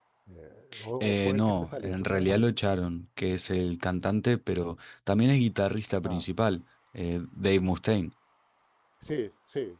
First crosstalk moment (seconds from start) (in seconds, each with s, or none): 1.0 s